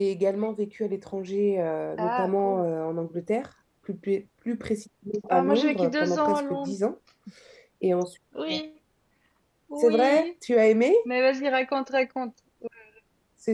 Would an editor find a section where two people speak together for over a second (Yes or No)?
Yes